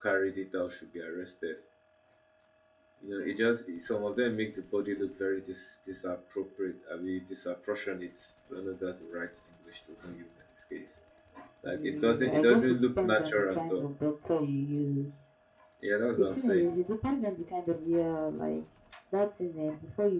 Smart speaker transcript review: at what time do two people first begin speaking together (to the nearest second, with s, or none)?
12 s